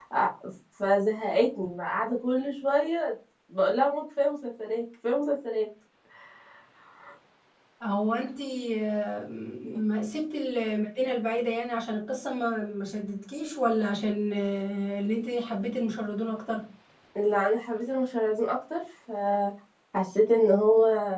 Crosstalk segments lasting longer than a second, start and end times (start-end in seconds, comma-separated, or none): none